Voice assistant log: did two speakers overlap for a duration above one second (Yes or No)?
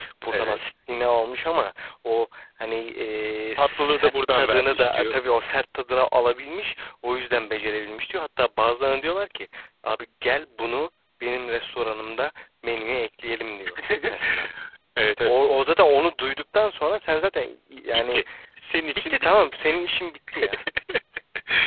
Yes